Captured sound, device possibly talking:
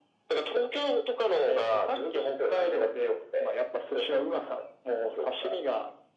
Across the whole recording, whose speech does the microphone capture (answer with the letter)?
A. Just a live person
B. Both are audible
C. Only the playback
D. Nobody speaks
C